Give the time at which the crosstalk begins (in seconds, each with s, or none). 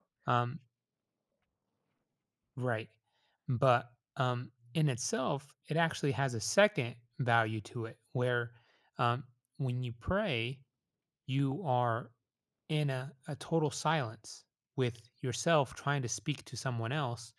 none